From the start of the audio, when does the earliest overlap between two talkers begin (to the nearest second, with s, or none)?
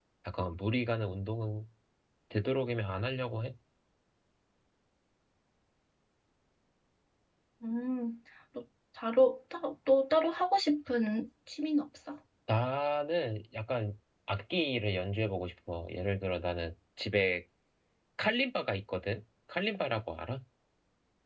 none